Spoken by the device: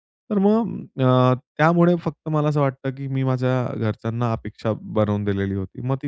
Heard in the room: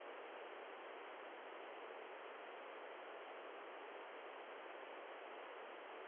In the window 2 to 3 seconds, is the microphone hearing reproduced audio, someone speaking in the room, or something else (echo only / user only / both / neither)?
neither